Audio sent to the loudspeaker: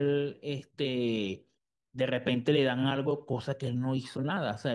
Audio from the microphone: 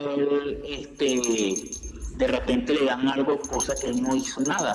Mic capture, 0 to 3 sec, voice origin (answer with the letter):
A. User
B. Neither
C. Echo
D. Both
C